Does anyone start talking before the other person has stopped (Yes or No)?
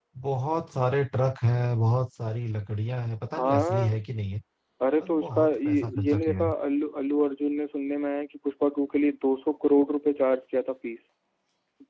Yes